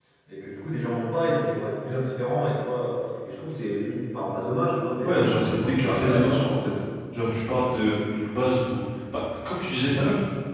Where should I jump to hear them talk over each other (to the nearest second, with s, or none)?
5 s